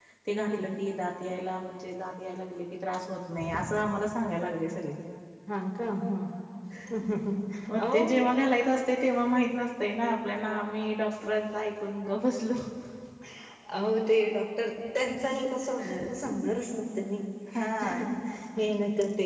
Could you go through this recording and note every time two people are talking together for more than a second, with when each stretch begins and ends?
none

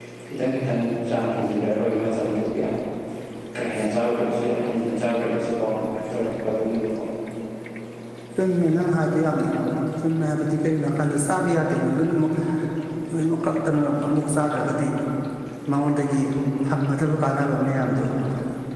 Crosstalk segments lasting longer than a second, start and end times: none

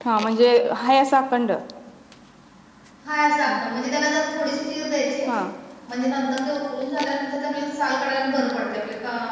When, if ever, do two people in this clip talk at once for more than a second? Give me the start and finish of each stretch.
none

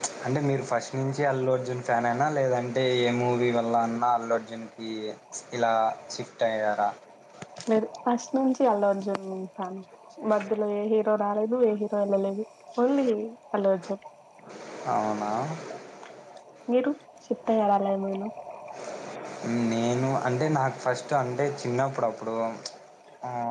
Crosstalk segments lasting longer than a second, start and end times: none

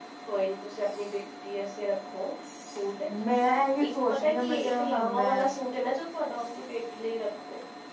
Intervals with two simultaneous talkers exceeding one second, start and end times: 3.8-5.4

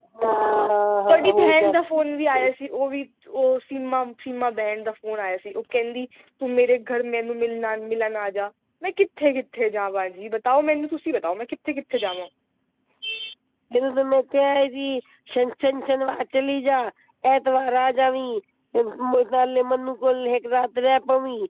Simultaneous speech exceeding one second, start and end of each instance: 1.1-2.5

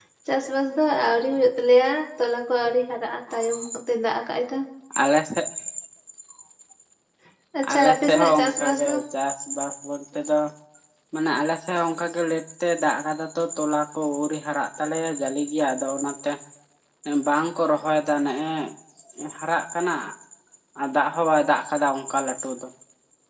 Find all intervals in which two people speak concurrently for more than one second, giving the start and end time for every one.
7.7-8.9

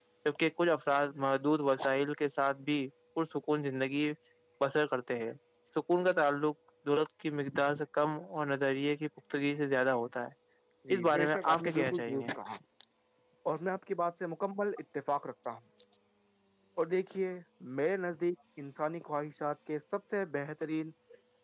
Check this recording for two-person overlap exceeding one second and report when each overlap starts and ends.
10.9-12.3

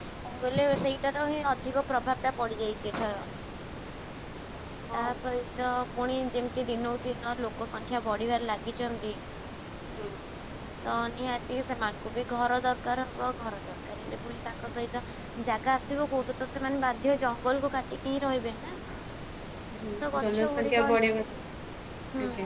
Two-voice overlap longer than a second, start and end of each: 20.0-21.2

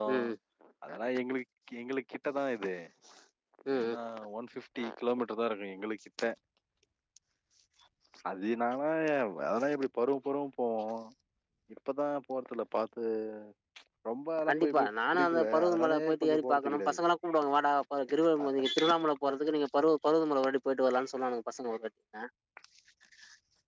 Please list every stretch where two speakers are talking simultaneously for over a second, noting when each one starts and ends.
14.5-17.0

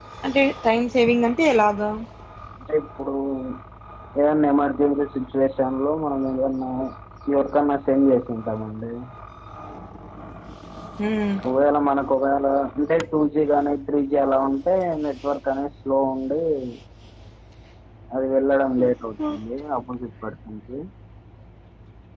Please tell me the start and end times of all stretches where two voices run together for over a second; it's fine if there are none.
none

